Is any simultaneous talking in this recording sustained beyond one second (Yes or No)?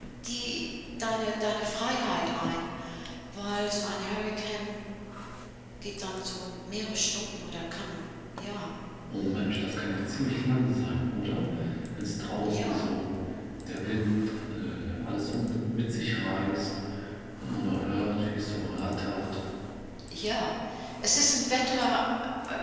No